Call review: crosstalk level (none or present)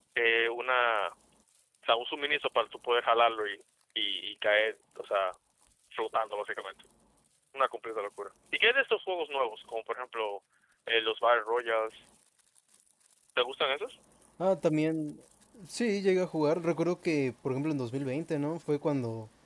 none